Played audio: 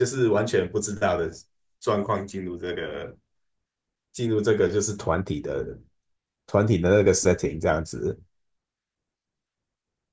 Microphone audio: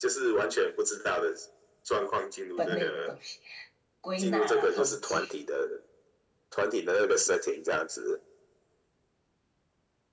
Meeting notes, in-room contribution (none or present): present